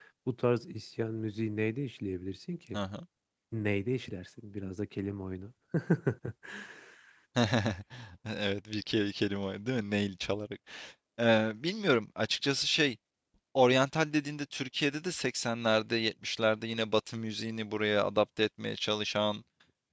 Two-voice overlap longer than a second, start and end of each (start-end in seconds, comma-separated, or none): none